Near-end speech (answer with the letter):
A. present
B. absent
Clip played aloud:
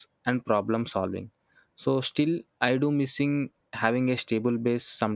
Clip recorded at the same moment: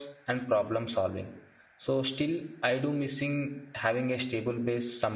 B